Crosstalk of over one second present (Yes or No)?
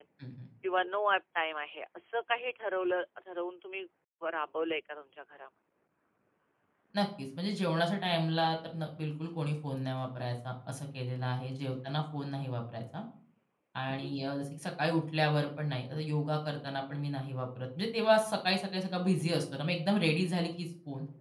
No